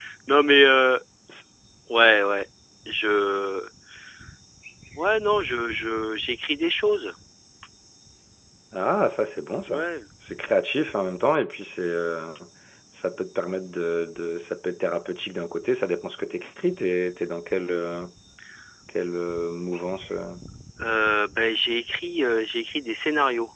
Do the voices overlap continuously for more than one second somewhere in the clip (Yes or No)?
No